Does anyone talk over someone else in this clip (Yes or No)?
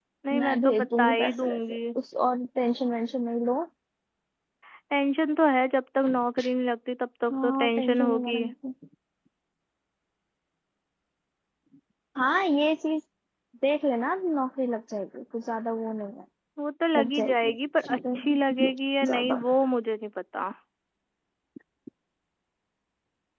Yes